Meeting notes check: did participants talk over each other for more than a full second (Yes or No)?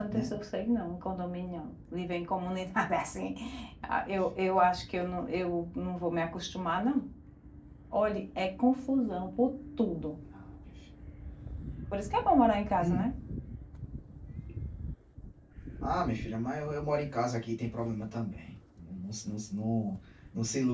No